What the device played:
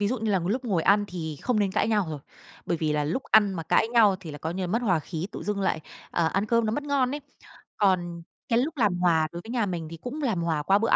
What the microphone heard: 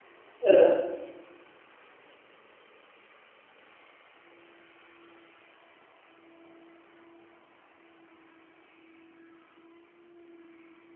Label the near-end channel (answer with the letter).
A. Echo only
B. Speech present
B